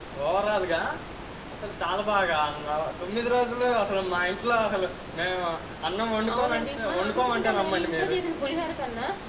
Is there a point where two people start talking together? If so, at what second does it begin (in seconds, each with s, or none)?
6.3 s